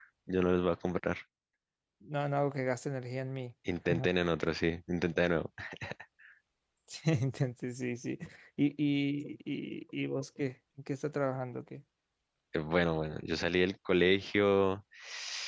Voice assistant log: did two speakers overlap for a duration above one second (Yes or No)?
No